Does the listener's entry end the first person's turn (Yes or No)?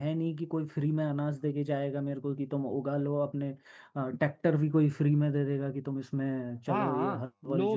Yes